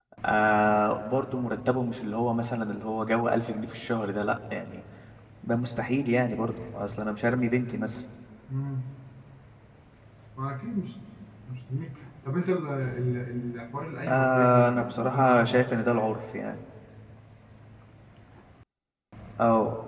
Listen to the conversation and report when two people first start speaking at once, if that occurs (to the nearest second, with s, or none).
14 s